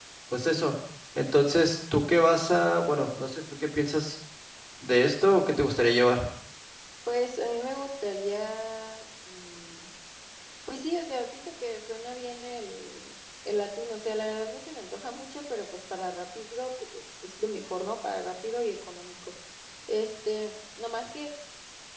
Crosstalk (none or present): none